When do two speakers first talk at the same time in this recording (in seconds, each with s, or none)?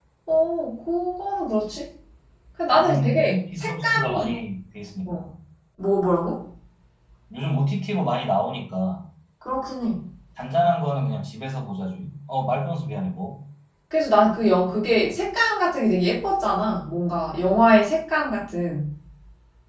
2.7 s